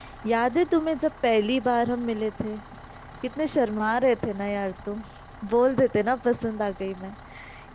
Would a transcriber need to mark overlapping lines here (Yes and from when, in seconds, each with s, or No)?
No